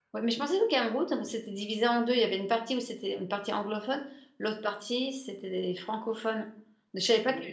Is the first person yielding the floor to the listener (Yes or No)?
No